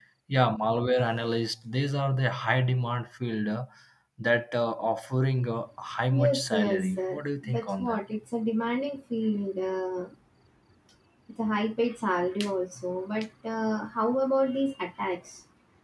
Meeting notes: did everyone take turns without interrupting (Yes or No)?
No